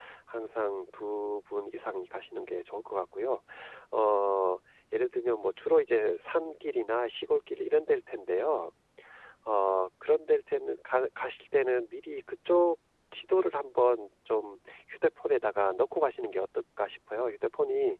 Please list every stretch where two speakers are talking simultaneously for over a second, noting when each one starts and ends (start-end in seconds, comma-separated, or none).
none